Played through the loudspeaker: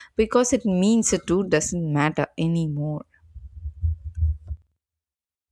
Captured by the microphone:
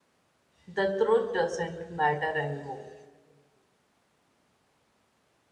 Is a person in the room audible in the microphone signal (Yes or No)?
Yes